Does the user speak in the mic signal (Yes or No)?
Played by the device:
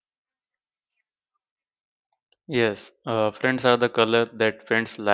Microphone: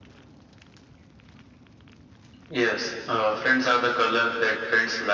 No